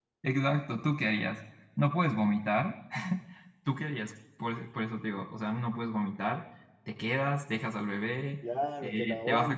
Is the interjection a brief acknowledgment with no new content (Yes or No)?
No